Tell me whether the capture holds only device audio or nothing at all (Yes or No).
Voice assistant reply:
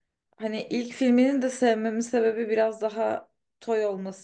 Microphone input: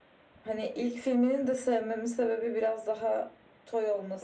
Yes